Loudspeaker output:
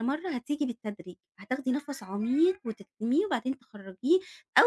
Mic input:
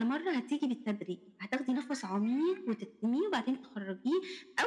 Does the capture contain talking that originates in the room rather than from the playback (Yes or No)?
No